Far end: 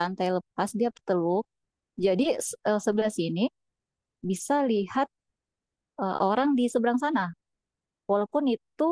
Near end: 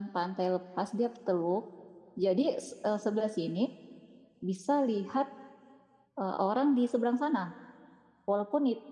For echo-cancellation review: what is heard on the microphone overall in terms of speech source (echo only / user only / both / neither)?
echo only